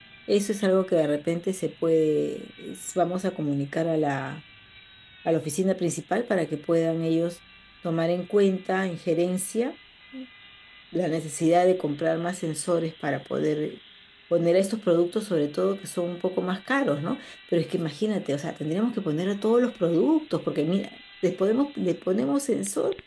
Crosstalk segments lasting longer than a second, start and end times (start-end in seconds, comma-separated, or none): none